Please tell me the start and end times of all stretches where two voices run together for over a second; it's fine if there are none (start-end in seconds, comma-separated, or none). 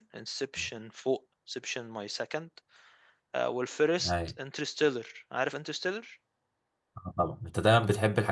none